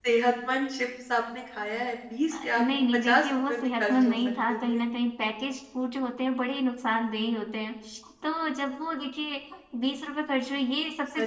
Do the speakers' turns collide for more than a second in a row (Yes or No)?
Yes